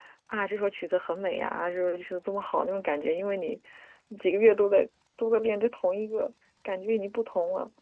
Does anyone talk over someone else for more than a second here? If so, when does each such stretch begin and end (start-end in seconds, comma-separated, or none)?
none